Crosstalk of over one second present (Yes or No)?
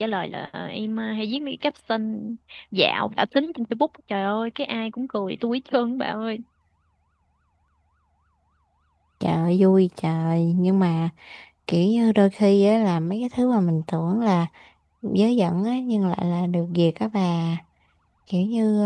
No